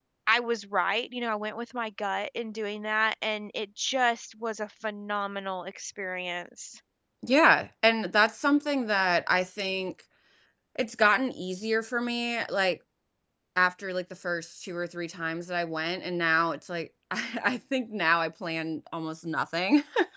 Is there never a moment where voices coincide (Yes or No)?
Yes